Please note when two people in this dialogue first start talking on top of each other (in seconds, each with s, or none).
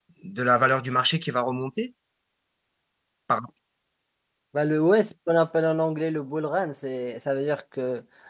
none